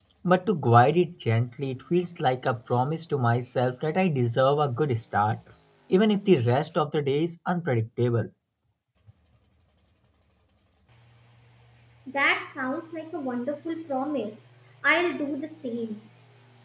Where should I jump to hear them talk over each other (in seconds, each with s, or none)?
none